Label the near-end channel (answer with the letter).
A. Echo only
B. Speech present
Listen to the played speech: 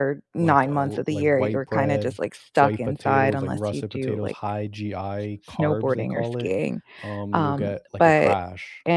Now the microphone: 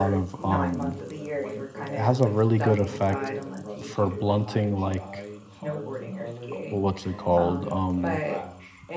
B